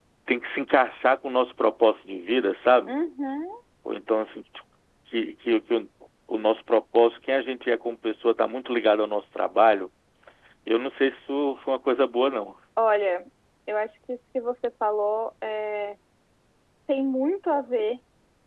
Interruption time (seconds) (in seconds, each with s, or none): none